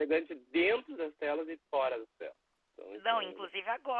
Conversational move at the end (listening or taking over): taking over